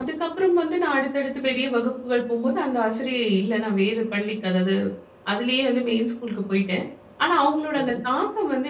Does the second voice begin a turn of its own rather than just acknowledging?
No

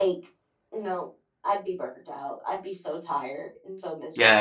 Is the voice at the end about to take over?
Yes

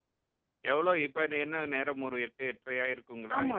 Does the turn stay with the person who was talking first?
No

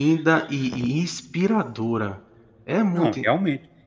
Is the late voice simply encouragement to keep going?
No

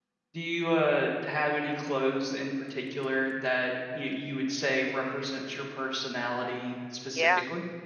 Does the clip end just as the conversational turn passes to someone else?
Yes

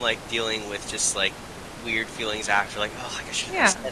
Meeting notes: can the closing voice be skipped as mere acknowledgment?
Yes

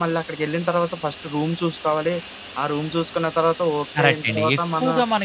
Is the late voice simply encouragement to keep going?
No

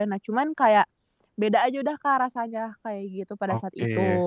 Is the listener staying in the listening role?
No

